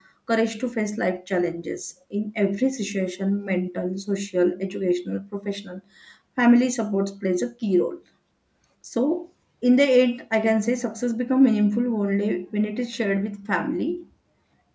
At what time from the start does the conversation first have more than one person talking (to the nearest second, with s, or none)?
none